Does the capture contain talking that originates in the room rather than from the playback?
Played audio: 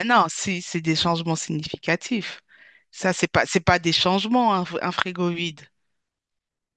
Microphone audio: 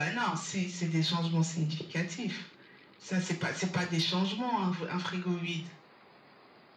No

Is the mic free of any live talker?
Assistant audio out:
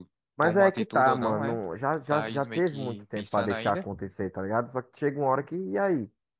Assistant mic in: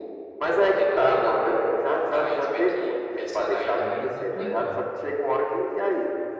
No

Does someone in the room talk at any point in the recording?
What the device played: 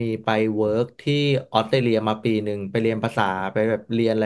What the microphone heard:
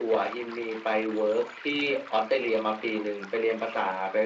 No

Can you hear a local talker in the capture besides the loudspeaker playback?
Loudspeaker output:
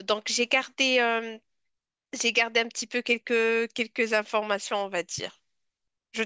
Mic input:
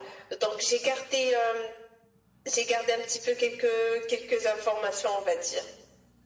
No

